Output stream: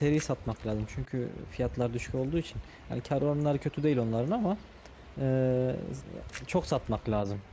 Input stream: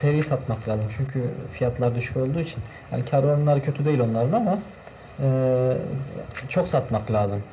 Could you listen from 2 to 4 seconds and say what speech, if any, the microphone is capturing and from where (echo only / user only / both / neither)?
echo only